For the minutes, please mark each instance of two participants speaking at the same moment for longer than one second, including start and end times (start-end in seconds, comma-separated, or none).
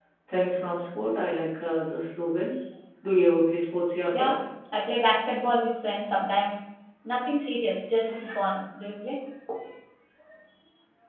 none